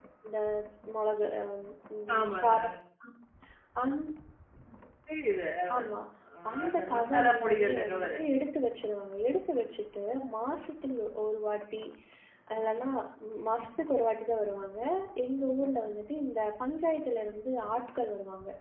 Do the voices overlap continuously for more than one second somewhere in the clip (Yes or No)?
Yes